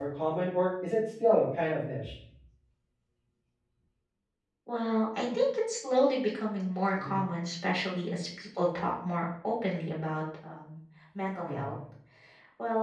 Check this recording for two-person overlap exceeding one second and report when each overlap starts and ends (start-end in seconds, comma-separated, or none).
none